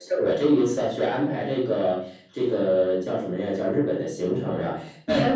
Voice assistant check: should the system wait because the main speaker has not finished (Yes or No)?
Yes